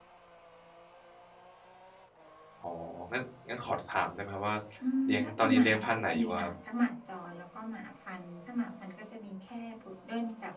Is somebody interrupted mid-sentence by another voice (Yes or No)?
Yes